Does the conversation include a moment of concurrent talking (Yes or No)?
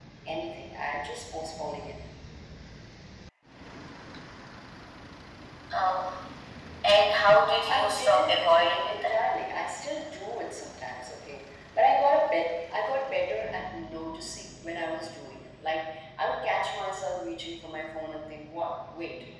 Yes